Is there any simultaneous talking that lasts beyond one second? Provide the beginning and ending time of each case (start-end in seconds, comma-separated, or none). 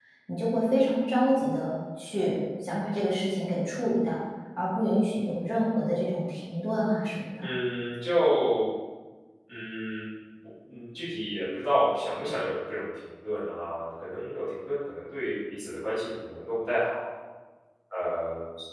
none